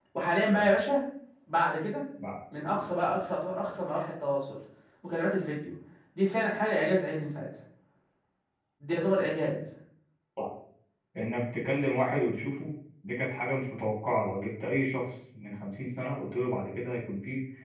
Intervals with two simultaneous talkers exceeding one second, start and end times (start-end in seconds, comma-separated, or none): none